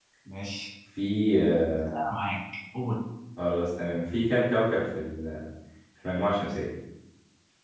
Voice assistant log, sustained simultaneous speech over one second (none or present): none